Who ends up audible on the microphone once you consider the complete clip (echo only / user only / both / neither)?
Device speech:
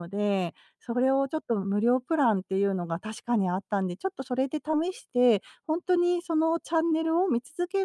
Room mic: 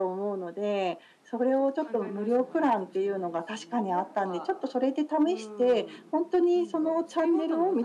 both